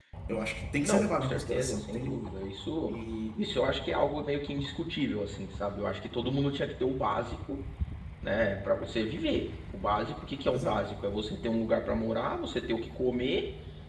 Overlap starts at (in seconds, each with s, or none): 0.8 s